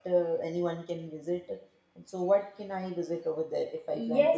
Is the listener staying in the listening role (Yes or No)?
No